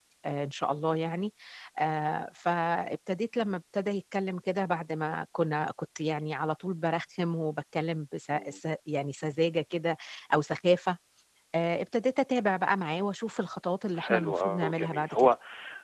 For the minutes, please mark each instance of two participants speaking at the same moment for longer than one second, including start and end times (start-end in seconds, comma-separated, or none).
14.0-15.3